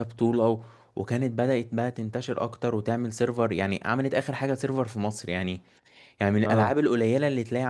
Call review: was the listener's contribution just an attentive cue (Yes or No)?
Yes